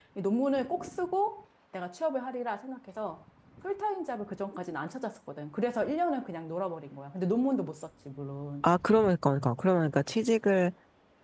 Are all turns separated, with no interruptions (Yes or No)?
Yes